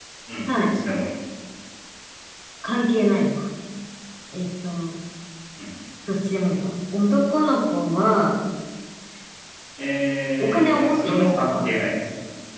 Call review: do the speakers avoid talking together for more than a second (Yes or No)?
No